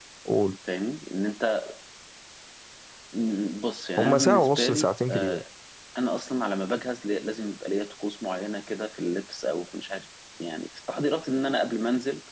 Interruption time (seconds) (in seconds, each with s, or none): 4.0 s